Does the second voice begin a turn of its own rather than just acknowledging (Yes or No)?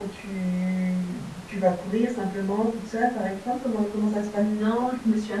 Yes